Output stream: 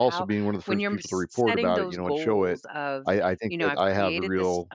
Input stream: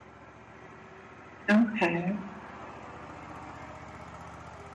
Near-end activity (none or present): present